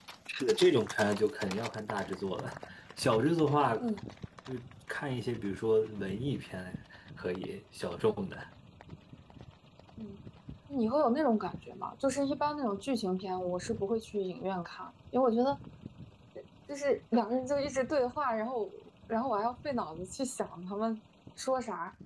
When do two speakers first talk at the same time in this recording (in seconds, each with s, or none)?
none